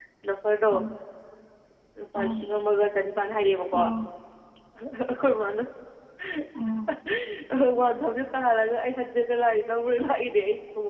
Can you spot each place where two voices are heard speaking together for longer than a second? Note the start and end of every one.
none

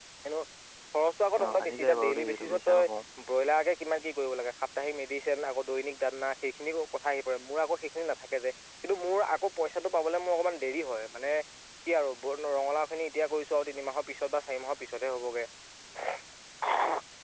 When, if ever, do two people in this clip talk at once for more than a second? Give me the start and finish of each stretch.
1.4-2.8

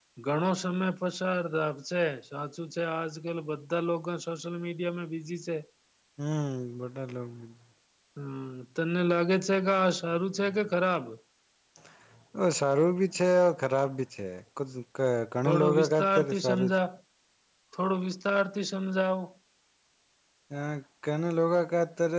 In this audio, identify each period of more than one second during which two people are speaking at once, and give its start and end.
15.5-16.7

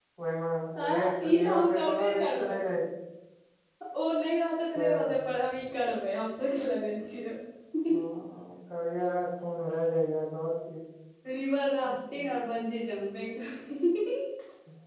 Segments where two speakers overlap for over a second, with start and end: 0.9-2.6

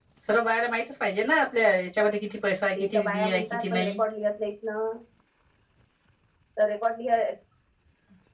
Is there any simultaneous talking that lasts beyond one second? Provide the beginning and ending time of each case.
2.8-4.0

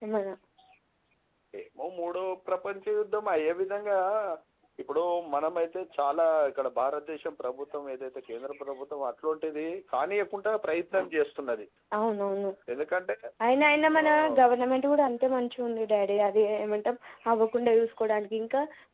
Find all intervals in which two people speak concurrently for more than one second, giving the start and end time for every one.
none

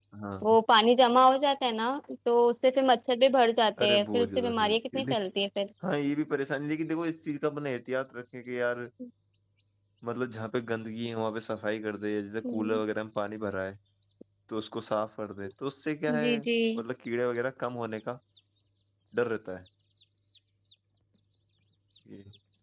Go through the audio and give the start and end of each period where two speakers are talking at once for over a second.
3.8-5.1

